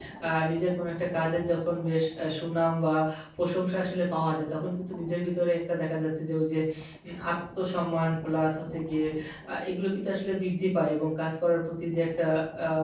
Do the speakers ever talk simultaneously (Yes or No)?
No